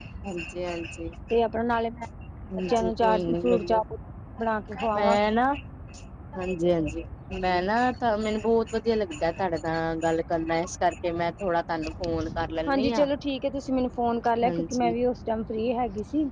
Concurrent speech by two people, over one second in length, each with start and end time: 2.6-3.8

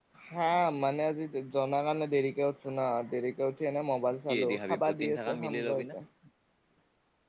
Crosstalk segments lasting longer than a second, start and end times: 4.3-6.0

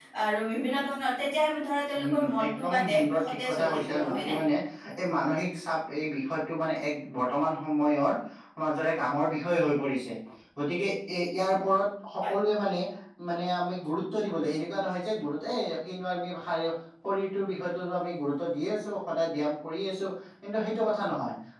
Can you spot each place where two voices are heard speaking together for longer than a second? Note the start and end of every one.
2.0-4.4

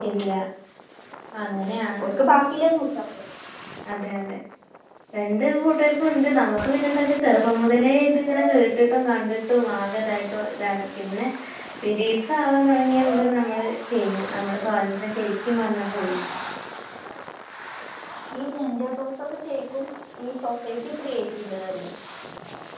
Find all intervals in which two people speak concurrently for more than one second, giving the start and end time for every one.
none

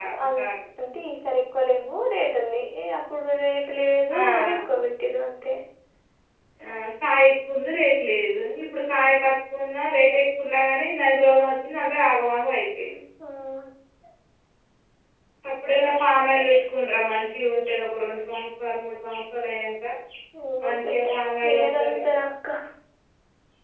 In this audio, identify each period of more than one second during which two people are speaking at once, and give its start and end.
20.6-22.0

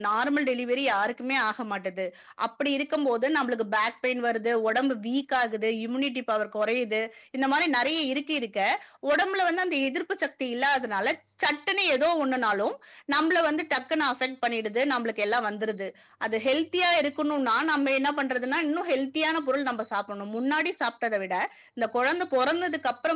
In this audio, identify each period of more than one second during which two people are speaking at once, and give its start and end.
none

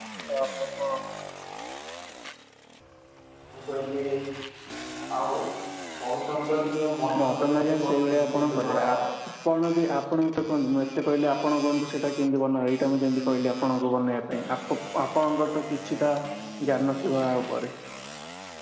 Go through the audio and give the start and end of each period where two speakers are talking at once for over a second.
7.2-9.0

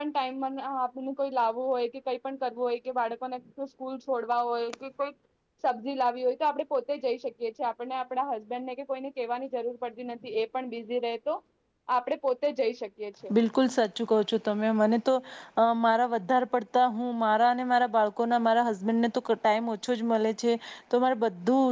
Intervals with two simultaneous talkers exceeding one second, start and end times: none

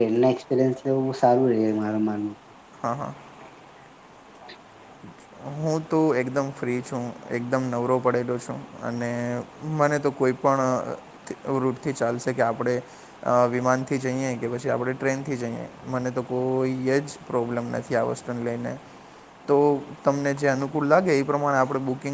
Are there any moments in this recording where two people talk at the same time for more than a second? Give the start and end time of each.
none

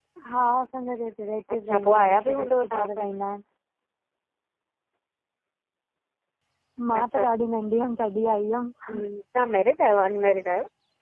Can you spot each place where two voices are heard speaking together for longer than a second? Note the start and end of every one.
1.5-3.0

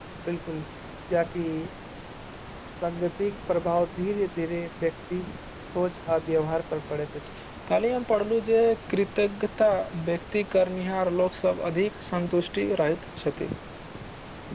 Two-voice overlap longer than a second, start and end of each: none

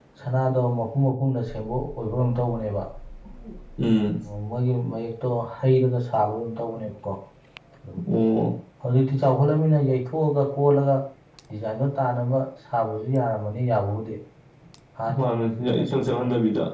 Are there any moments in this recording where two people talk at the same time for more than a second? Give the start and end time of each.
none

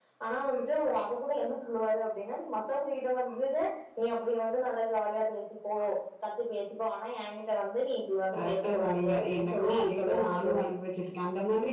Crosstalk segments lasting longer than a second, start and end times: 8.3-10.7

